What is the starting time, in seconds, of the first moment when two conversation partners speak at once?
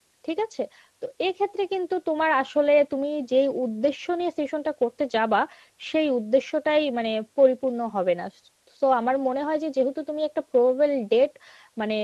none

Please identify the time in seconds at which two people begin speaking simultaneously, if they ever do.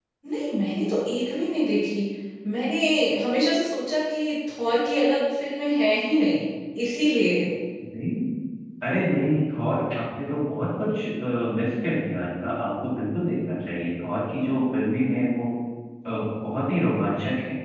none

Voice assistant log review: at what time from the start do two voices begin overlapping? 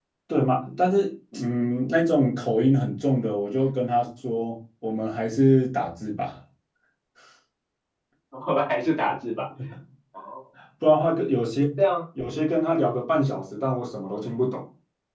none

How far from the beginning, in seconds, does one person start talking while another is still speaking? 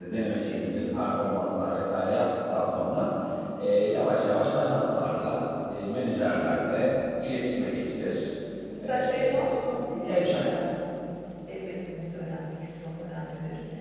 8.9 s

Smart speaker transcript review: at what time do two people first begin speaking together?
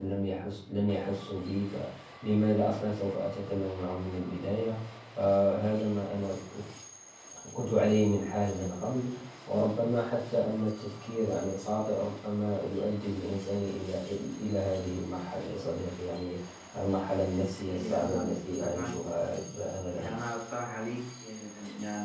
17.7 s

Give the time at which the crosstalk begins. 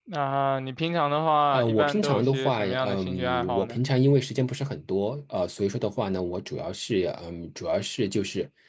1.5 s

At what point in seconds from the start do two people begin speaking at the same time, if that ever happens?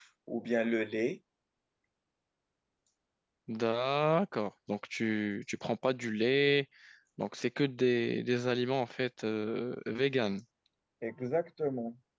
none

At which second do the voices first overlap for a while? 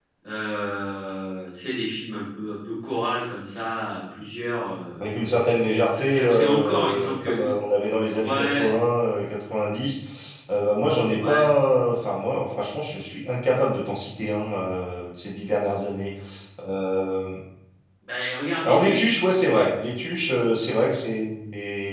6.0 s

